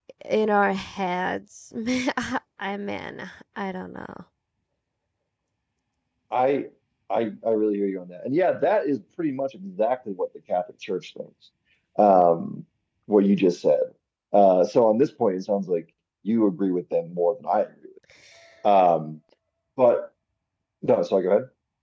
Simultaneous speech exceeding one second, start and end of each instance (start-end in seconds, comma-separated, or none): none